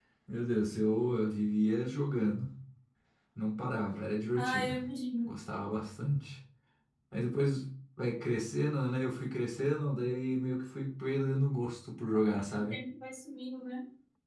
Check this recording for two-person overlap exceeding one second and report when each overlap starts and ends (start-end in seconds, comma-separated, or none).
none